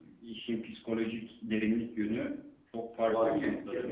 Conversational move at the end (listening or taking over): taking over